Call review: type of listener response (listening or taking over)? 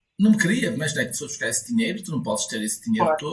listening